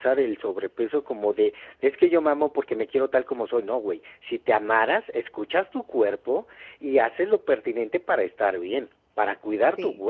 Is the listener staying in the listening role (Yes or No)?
Yes